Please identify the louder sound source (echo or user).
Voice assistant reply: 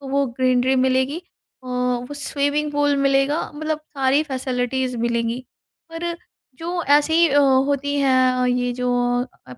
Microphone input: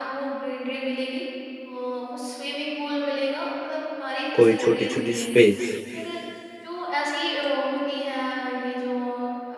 user